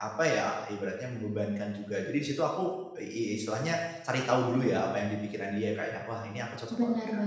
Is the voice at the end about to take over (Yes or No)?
Yes